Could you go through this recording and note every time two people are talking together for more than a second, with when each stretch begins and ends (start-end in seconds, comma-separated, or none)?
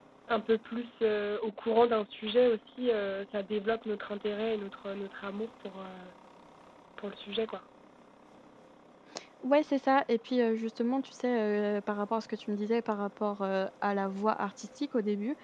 none